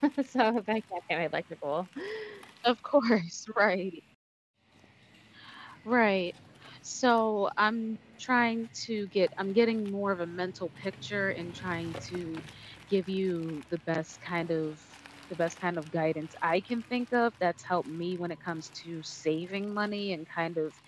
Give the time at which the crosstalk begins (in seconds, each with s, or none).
none